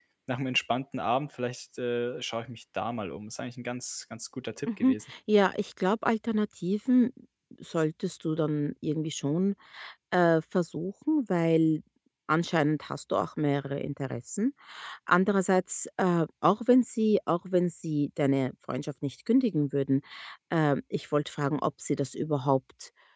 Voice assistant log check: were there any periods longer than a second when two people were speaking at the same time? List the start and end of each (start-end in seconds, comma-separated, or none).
none